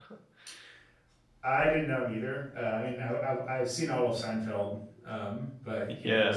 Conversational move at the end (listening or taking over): taking over